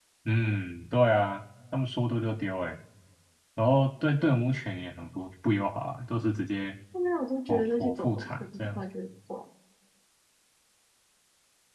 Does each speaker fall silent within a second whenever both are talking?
No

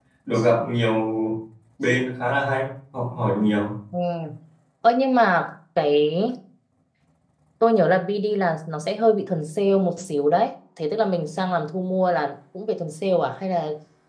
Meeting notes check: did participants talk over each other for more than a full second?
No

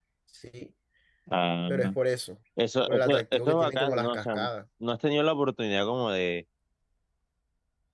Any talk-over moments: Yes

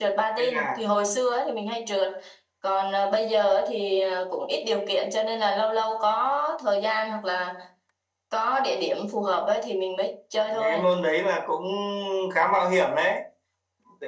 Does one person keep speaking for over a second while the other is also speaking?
No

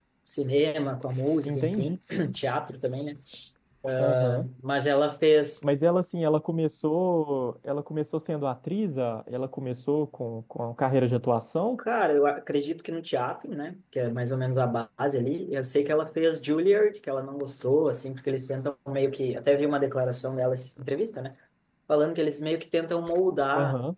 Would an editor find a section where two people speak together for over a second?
No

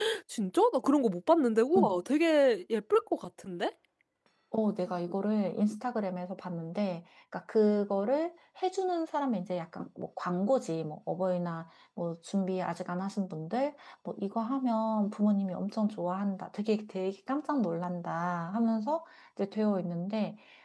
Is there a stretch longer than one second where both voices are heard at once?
No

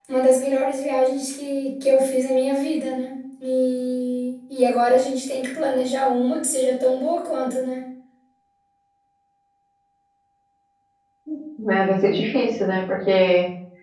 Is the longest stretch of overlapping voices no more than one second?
Yes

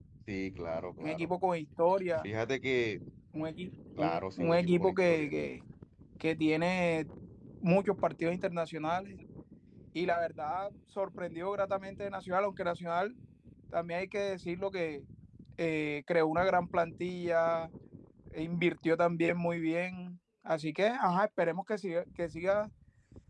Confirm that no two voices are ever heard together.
No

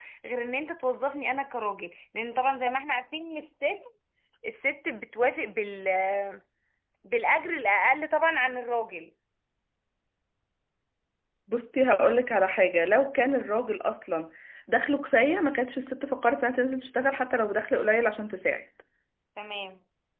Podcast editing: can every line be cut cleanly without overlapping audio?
Yes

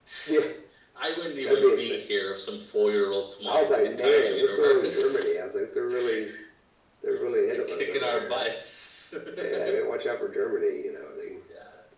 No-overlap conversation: No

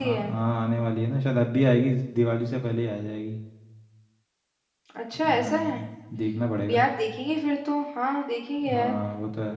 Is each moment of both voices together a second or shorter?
Yes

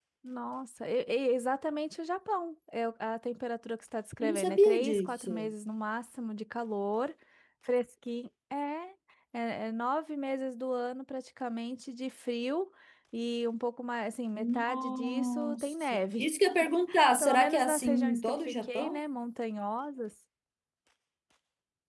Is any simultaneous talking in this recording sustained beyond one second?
Yes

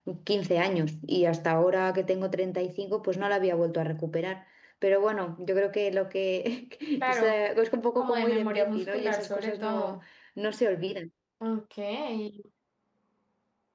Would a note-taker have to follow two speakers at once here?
Yes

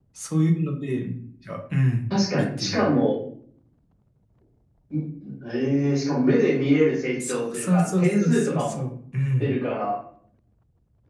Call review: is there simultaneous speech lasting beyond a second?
Yes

